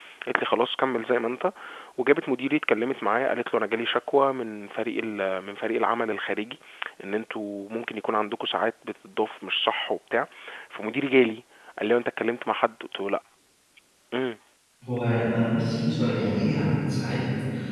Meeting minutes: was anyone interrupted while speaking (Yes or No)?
No